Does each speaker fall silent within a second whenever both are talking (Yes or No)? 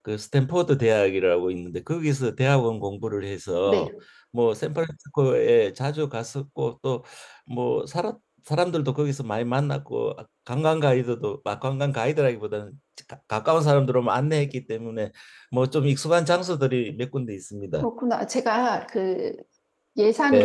Yes